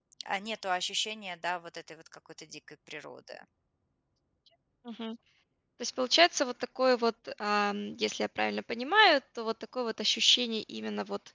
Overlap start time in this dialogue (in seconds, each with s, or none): none